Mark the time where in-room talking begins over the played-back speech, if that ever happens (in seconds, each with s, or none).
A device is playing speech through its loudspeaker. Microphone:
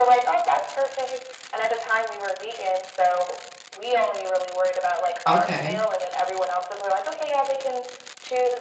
5.3 s